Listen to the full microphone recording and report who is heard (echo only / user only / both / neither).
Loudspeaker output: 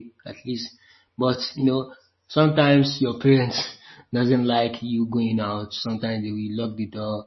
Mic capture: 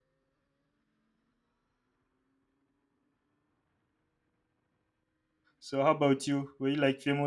user only